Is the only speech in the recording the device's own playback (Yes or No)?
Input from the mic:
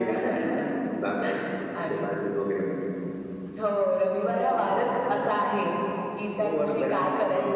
Yes